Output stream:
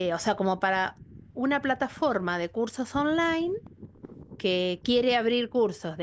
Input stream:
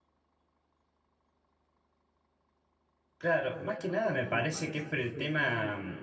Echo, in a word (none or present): none